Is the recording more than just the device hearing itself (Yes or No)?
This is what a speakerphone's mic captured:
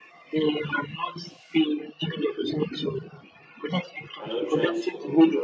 Yes